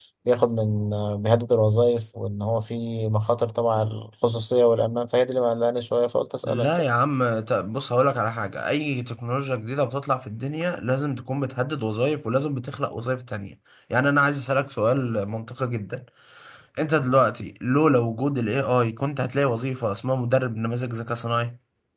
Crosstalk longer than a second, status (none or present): none